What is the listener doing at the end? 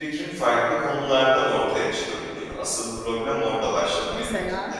listening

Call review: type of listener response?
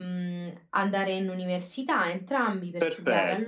taking over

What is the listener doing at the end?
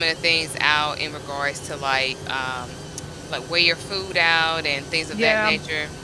taking over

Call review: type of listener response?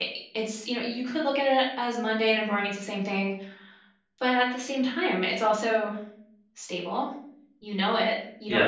listening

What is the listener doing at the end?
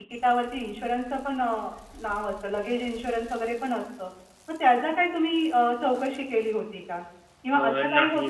listening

